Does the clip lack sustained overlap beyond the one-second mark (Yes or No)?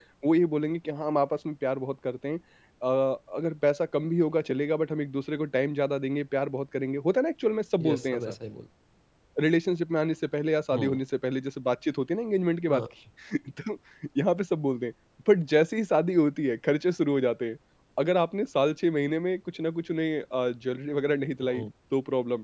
Yes